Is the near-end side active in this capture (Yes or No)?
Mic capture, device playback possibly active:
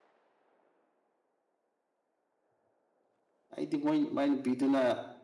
Yes